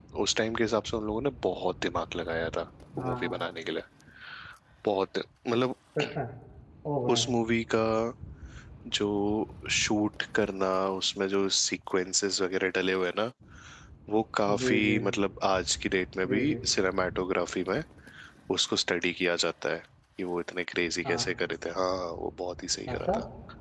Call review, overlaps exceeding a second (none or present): none